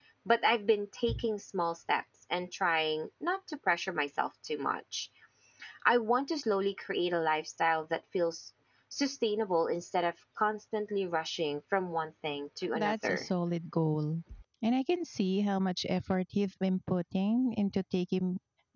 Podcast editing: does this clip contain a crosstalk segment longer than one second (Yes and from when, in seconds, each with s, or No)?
No